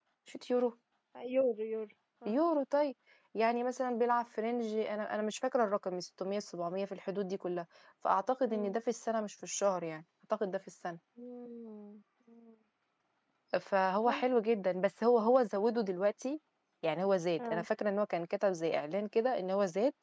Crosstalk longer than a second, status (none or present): none